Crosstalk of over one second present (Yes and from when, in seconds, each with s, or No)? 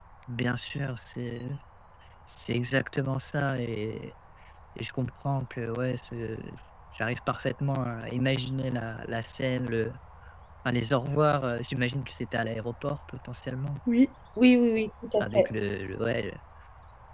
No